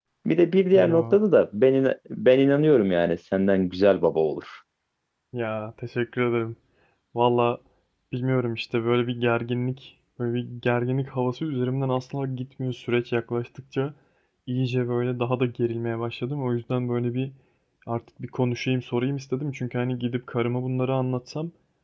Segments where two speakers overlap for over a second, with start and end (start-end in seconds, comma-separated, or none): none